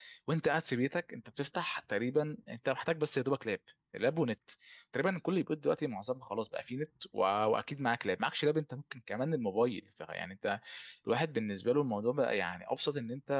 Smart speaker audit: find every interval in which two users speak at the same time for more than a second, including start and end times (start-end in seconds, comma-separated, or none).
none